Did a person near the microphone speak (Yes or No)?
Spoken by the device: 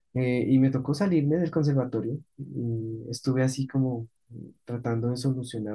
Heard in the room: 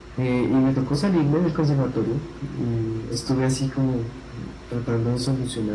No